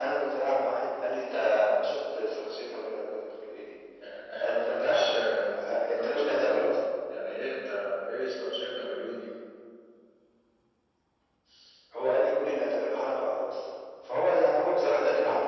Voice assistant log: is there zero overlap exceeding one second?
No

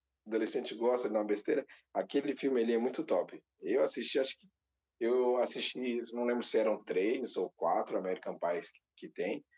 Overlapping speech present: No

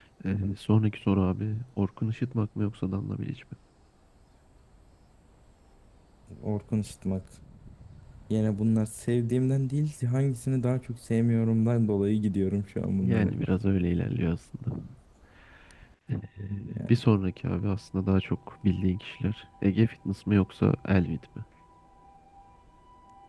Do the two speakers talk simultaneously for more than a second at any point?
No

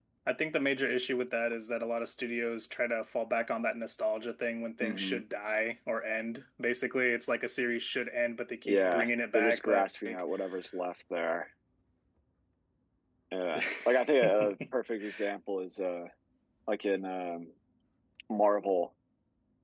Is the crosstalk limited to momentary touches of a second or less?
No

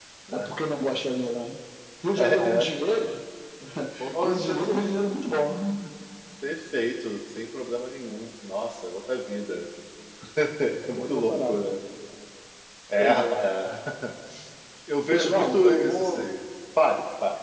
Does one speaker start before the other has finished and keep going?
Yes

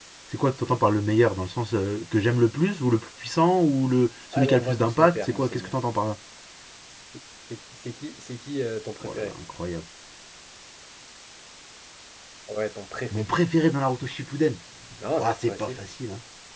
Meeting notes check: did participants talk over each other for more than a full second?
Yes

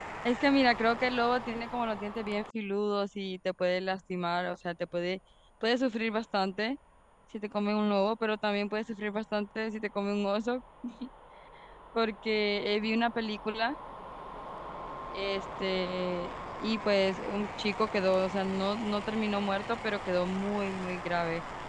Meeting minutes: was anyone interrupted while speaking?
No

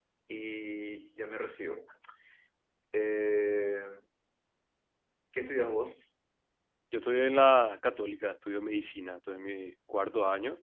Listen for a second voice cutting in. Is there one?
No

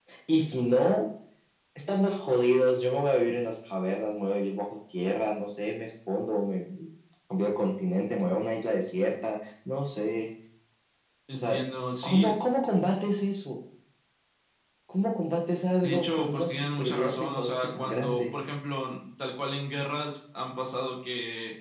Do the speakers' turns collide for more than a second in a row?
Yes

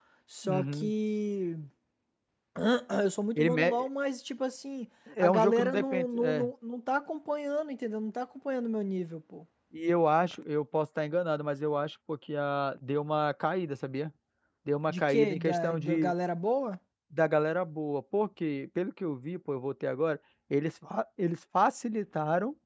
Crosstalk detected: Yes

